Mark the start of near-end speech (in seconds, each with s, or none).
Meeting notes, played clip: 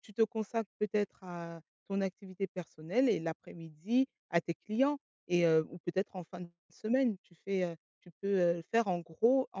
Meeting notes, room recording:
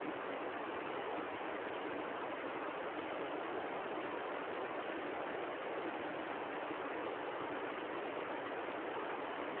none